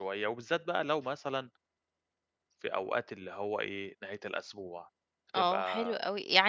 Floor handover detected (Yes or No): Yes